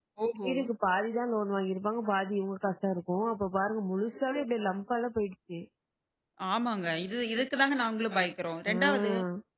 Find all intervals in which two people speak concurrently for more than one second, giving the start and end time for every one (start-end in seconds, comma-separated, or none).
none